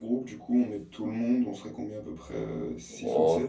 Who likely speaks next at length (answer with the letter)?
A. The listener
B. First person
A